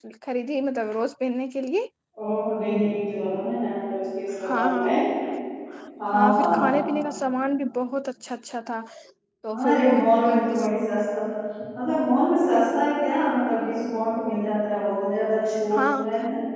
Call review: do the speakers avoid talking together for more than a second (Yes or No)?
Yes